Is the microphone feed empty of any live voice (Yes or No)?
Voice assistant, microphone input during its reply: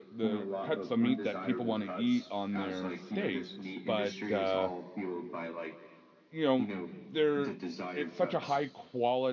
No